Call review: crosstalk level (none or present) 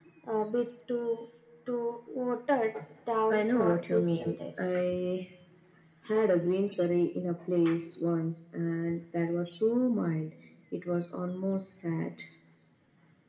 present